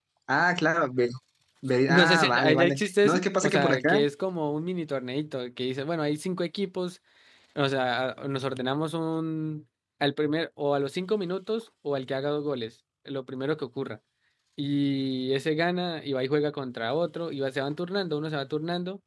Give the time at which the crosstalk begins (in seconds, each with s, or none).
1.9 s